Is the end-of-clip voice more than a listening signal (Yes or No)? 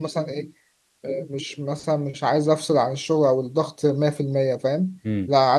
No